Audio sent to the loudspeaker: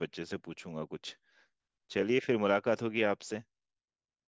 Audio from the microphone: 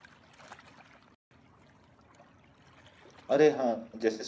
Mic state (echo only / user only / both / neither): user only